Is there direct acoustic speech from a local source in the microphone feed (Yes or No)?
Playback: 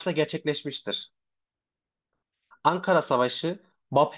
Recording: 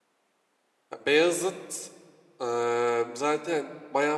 Yes